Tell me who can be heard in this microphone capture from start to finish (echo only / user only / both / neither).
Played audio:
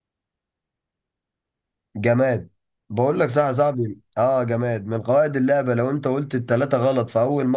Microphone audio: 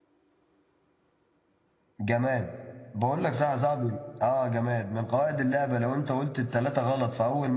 echo only